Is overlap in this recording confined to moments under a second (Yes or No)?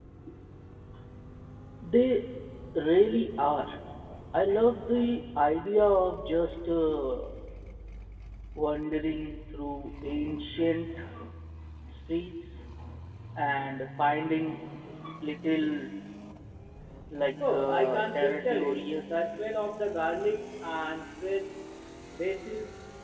No